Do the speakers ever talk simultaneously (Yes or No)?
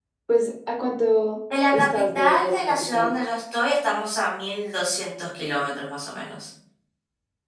Yes